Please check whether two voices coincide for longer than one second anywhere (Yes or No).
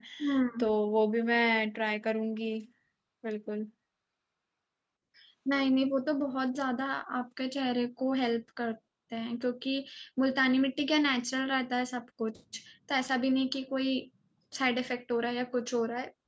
No